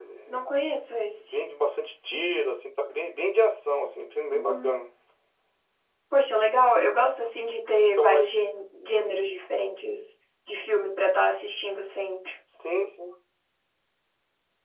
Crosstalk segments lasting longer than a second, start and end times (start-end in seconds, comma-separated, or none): none